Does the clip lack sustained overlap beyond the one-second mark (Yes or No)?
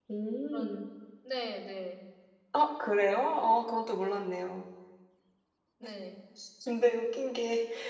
Yes